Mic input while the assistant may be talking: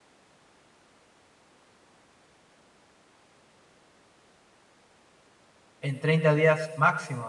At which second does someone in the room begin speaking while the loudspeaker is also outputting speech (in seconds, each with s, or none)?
5.8 s